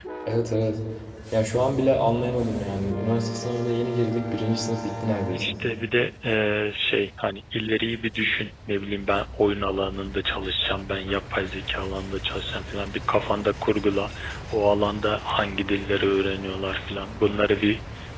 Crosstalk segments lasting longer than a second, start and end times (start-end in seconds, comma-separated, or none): none